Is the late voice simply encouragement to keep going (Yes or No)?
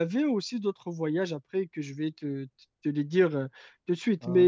Yes